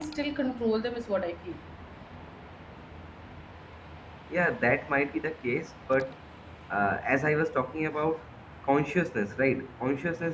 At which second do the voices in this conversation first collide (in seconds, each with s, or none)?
none